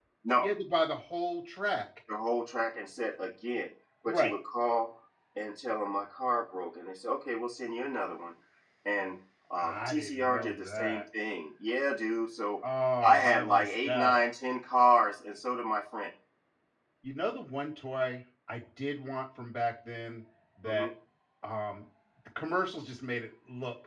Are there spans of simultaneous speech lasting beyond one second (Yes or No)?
Yes